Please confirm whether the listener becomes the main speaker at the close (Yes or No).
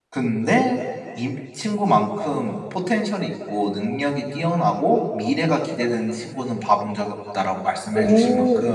Yes